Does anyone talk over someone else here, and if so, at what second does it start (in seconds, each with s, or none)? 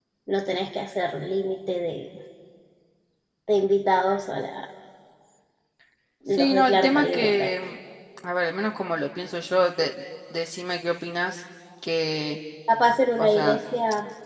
6.3 s